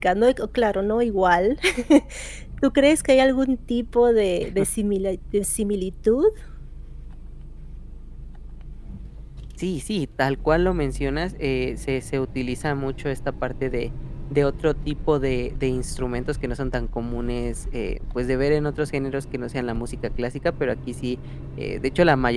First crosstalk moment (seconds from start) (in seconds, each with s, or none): none